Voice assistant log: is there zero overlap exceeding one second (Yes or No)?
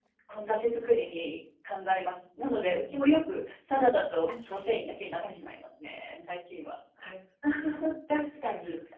Yes